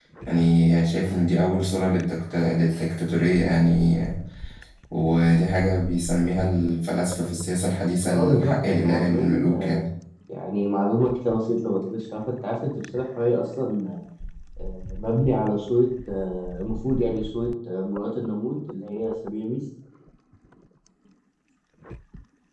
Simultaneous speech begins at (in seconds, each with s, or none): 8.1 s